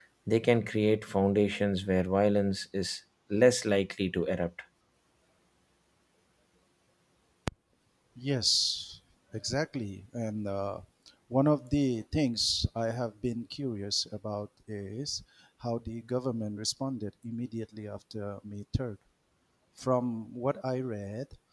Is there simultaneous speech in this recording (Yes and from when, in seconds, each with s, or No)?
No